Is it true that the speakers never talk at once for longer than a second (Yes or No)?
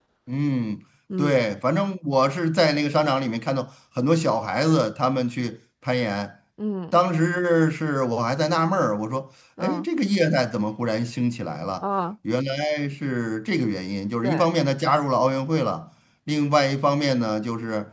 Yes